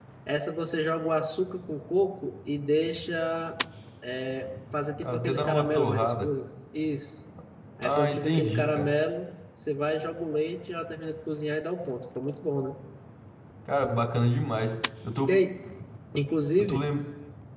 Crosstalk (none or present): present